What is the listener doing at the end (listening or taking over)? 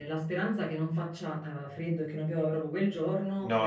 listening